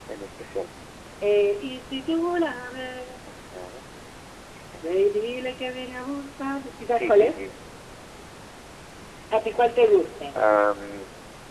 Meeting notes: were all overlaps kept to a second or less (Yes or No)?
Yes